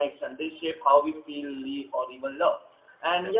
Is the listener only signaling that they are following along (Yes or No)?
Yes